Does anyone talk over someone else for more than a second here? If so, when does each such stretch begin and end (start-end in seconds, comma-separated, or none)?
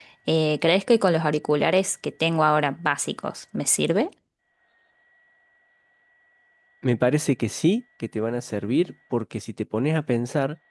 none